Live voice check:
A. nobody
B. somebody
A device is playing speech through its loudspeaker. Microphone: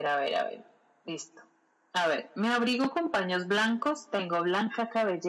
A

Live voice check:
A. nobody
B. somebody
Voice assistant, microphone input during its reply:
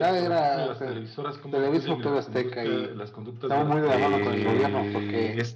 B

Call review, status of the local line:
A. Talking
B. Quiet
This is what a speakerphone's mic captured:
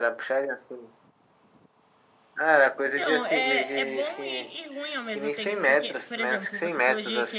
A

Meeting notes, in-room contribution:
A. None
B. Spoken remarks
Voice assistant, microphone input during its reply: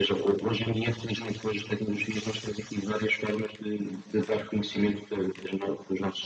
A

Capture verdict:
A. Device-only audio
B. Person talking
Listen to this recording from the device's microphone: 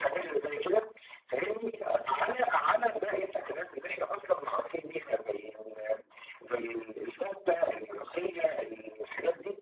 A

